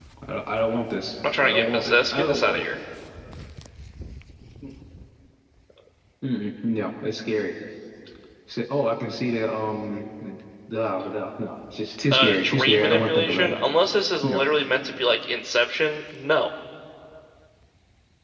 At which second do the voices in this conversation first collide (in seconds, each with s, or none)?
1.4 s